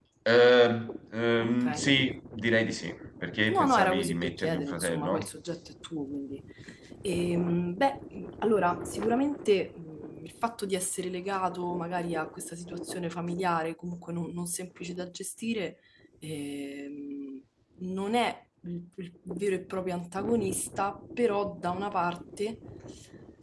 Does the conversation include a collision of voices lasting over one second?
Yes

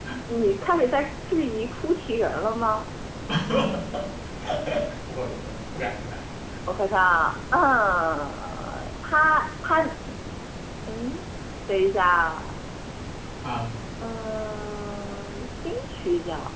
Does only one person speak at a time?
Yes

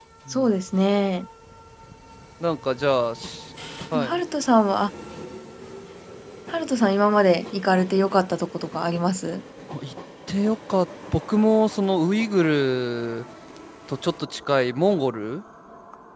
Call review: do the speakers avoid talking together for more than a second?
Yes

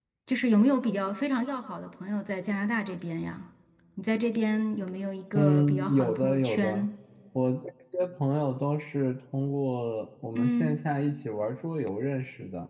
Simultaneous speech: Yes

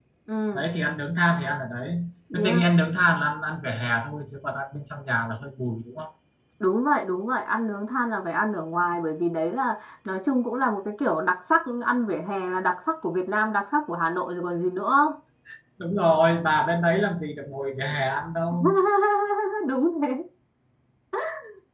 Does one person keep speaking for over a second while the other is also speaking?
No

